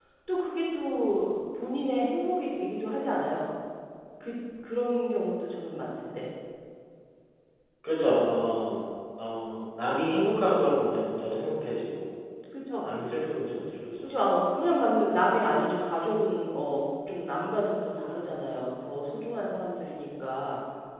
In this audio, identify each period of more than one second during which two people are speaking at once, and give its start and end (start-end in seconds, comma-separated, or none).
none